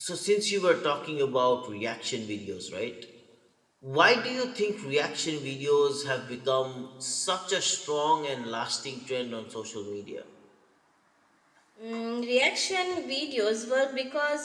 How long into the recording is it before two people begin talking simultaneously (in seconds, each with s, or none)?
none